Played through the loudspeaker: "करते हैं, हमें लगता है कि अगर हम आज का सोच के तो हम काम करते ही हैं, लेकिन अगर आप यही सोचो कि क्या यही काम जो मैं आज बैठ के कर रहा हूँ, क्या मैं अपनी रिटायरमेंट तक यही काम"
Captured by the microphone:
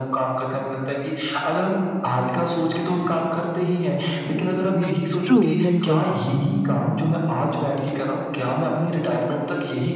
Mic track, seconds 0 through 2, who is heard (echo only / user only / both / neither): echo only